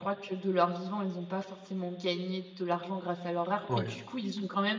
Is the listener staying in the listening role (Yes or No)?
Yes